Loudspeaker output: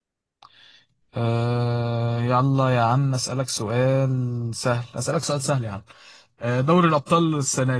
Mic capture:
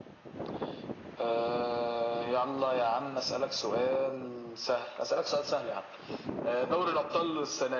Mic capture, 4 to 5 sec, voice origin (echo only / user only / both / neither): echo only